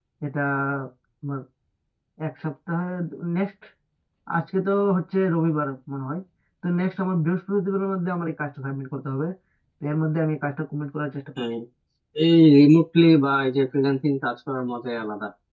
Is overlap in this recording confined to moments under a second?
Yes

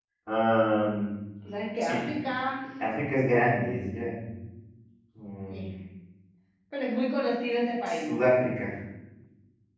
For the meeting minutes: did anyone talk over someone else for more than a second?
No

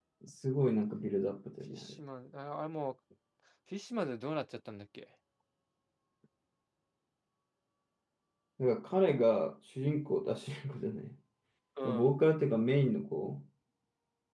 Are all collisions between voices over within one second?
Yes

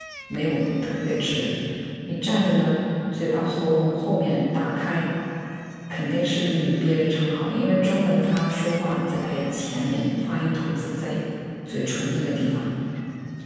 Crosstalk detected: No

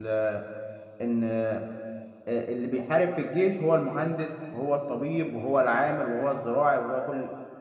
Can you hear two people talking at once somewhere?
No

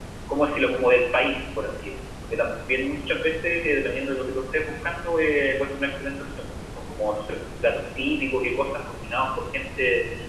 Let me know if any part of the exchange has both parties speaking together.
No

